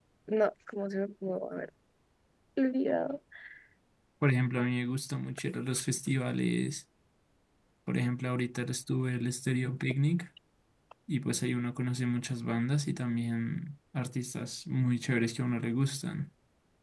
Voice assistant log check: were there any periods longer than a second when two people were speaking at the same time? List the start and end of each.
none

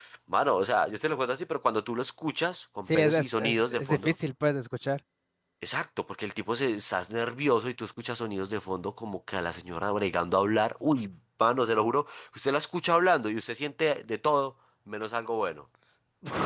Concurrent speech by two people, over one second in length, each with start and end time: 2.9-4.1

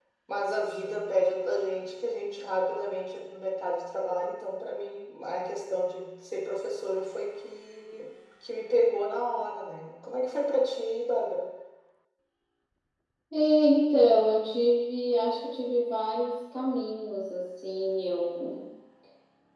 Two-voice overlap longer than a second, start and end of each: none

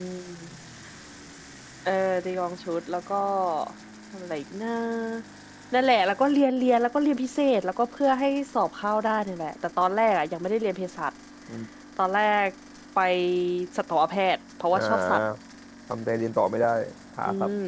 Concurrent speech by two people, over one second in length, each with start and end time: none

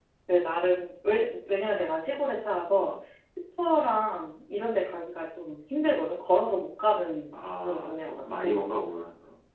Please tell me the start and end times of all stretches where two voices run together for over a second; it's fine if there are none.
7.3-8.7

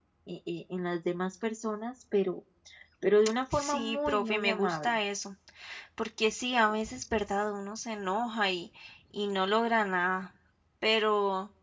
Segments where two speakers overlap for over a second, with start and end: 3.5-4.9

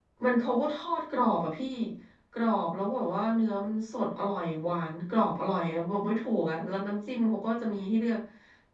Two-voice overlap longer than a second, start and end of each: none

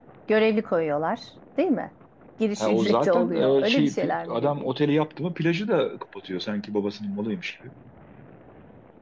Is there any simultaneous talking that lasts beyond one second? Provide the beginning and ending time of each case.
2.6-4.7

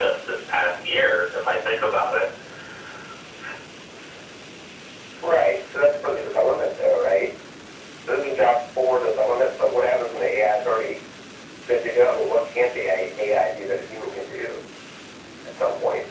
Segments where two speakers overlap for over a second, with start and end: none

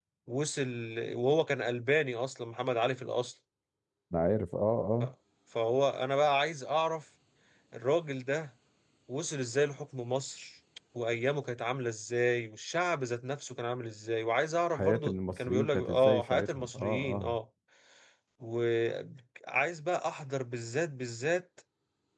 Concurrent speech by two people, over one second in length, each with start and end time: 14.7-17.4

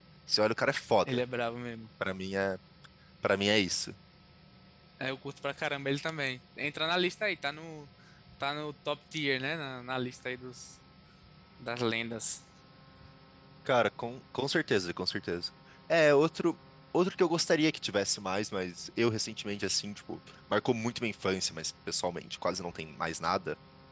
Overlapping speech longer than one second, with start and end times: none

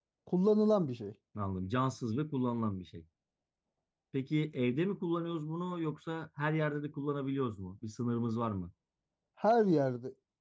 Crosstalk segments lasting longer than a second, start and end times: none

